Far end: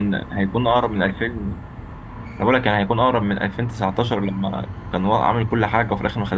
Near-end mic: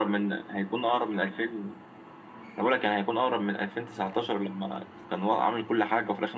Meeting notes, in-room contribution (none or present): none